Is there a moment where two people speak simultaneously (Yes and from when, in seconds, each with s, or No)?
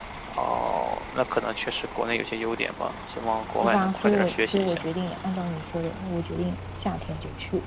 Yes, from 3.6 s